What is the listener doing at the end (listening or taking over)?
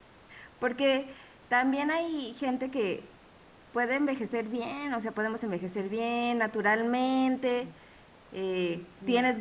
listening